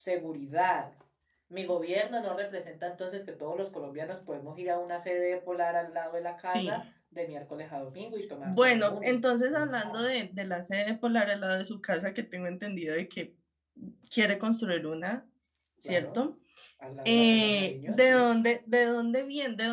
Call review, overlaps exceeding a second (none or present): present